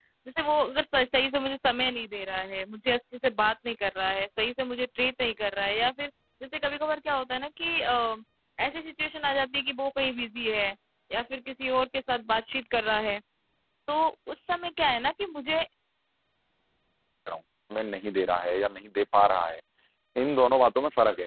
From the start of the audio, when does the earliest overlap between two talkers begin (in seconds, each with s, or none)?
none